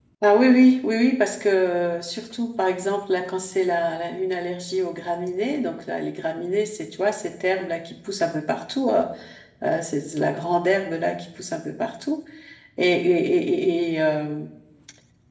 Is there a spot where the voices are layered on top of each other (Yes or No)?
No